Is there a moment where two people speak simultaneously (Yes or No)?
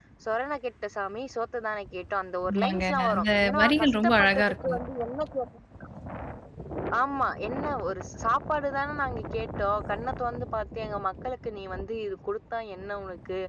Yes